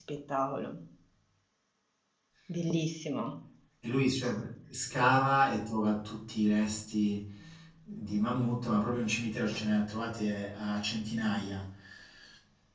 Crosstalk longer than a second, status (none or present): none